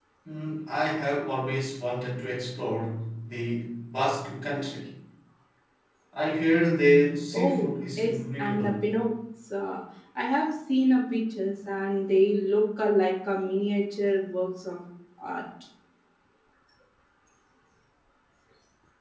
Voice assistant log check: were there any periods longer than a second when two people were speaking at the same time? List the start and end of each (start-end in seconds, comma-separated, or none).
7.3-8.7